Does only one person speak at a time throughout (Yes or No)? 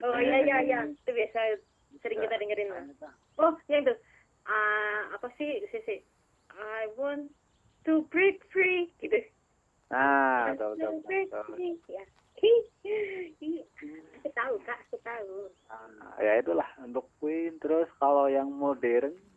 No